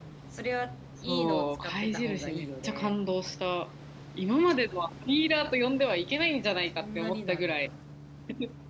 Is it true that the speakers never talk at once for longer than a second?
No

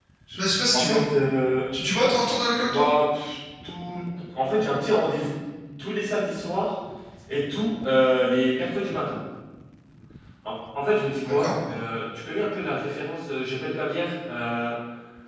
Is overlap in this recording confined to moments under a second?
Yes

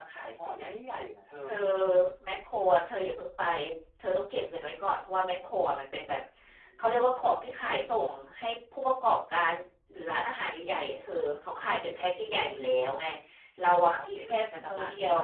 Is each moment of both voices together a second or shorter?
No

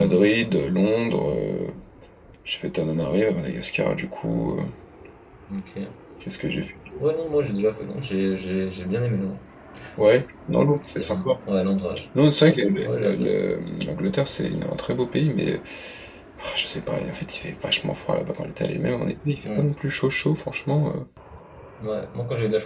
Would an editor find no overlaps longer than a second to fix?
Yes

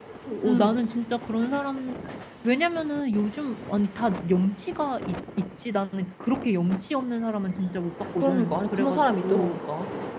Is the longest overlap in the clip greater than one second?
Yes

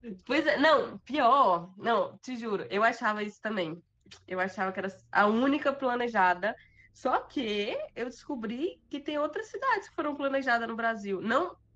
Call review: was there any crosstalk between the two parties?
No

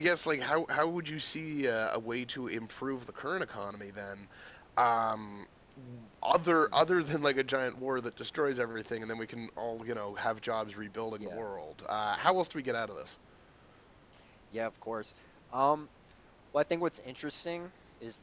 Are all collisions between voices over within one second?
Yes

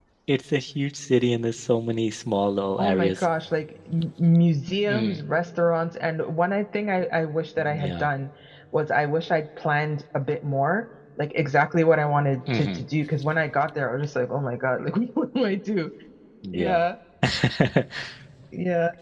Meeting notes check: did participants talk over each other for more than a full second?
No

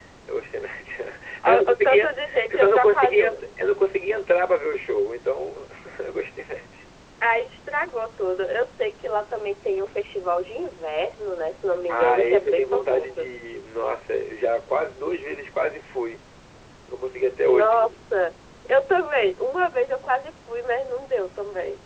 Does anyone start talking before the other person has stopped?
Yes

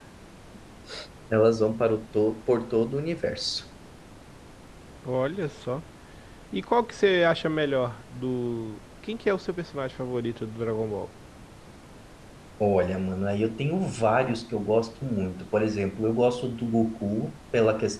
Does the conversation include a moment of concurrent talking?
No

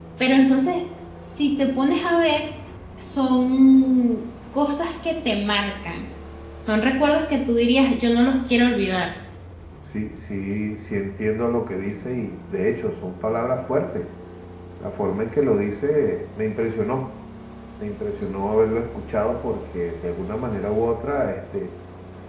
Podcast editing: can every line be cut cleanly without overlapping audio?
Yes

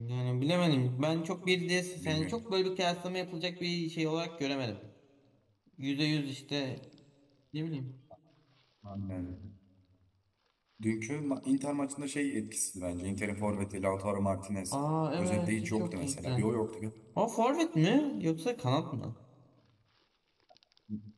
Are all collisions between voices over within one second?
No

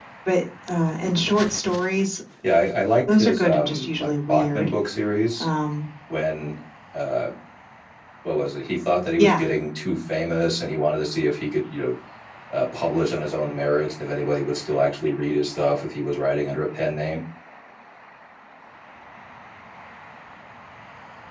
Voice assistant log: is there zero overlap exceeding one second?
No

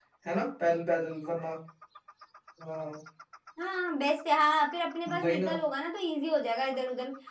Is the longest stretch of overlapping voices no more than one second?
Yes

